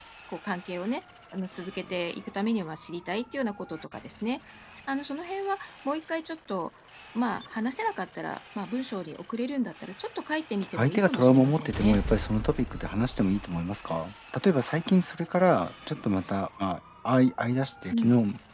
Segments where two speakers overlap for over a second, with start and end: 10.8-12.0

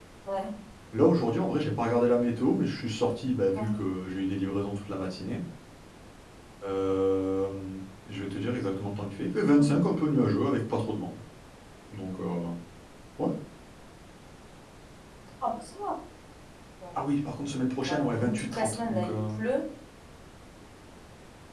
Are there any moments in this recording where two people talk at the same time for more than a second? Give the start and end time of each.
17.9-19.2

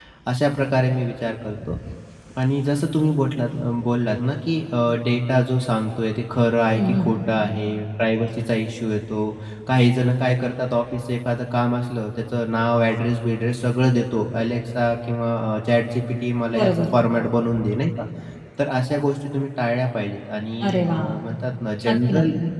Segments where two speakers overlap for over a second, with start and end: none

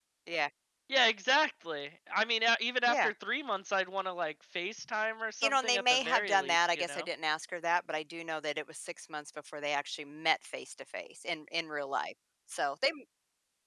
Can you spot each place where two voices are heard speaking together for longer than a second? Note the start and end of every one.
5.4-7.1

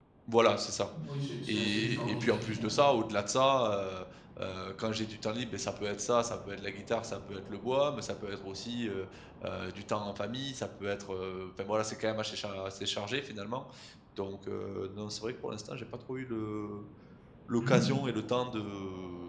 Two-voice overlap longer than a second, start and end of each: 1.5-2.7

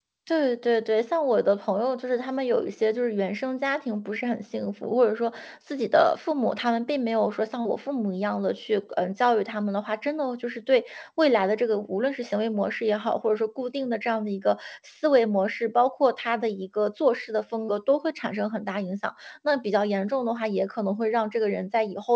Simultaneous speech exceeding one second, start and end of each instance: none

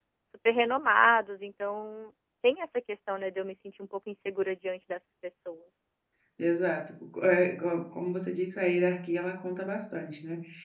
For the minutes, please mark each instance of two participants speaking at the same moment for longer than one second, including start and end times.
none

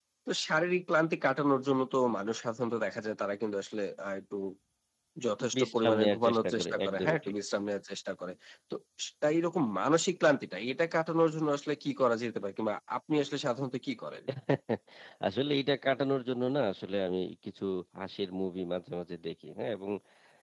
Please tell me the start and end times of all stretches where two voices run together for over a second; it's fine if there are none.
5.6-7.3

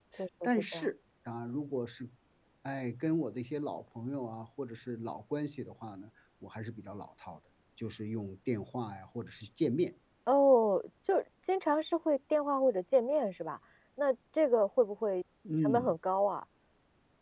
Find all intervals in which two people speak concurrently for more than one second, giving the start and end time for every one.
none

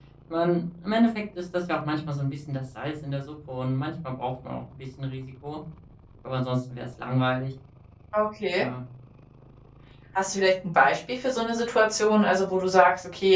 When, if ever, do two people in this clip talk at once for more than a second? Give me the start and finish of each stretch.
none

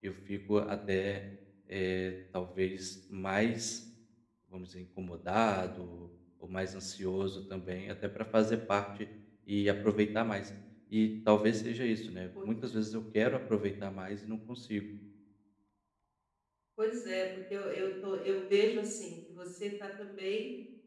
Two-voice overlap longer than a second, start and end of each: none

